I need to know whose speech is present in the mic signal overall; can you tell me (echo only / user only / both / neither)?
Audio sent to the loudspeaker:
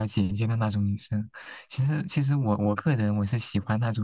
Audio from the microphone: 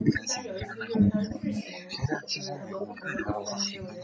both